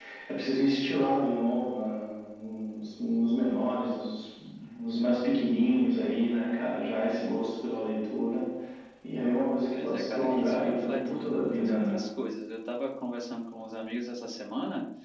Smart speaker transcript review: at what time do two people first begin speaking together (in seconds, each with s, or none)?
9.8 s